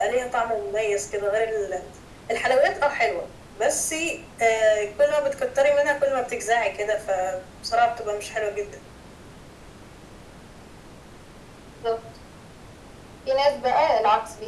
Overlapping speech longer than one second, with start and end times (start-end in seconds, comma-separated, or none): none